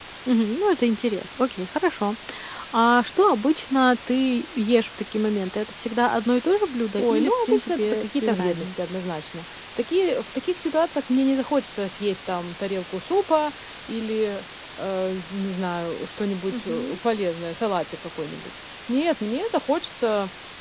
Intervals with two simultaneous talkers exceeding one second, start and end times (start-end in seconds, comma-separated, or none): 7.0-8.9